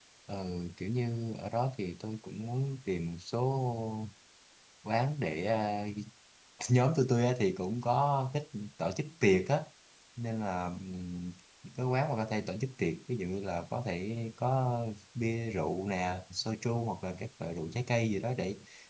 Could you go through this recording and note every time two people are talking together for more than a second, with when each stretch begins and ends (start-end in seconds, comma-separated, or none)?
none